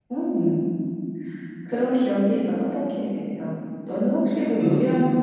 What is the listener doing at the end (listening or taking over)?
taking over